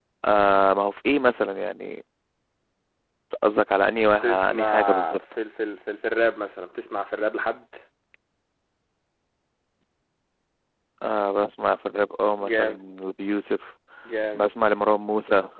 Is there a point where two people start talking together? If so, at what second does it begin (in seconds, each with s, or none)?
4.0 s